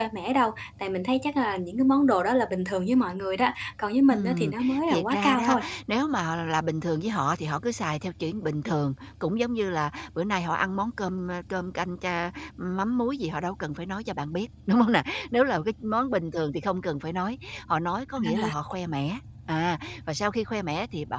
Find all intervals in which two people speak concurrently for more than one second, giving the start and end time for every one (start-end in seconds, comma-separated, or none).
4.1-5.6